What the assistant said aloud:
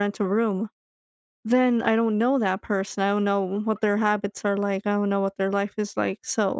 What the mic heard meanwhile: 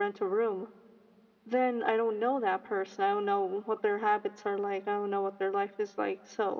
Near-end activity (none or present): none